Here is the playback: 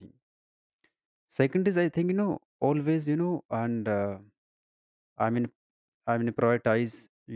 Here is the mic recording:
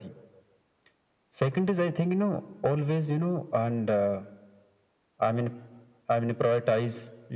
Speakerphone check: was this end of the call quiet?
Yes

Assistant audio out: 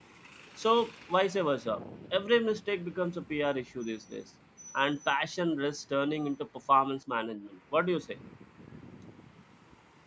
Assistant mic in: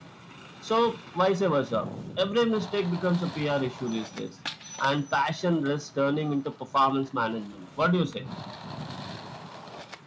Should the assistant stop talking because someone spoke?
No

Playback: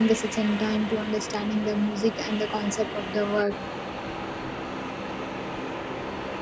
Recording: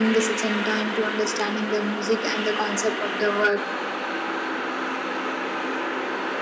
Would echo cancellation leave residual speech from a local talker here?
No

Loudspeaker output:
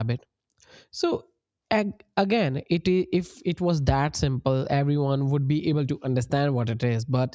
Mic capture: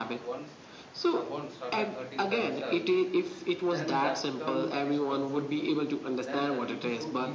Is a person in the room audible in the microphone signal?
Yes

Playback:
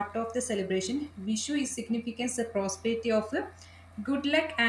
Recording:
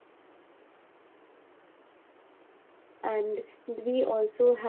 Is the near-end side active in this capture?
Yes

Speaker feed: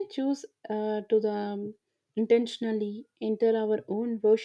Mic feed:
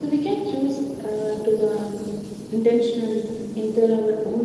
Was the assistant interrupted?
No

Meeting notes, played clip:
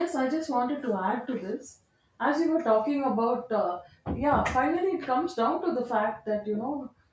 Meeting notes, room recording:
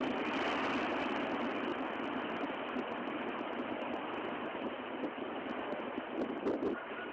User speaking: No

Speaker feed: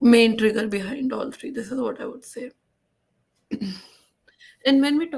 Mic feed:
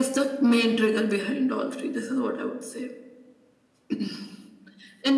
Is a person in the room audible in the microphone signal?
No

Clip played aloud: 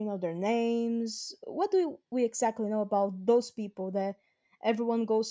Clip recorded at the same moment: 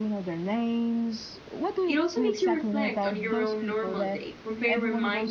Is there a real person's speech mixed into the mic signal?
Yes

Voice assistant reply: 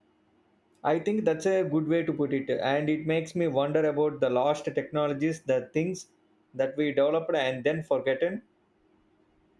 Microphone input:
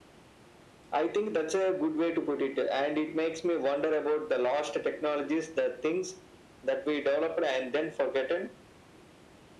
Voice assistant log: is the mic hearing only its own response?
Yes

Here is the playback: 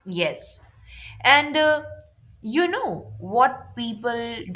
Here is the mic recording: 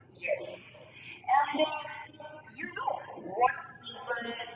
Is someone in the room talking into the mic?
No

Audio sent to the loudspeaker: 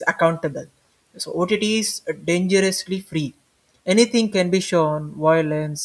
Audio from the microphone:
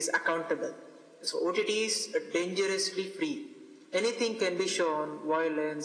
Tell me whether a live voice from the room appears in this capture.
No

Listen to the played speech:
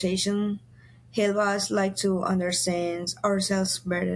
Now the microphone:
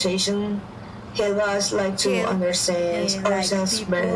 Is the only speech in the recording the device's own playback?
No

